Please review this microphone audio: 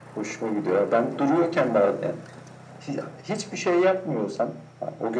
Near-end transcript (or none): none